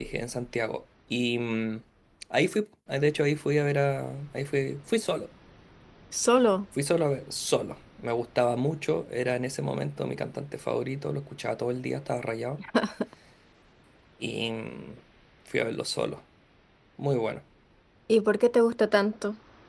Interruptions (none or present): none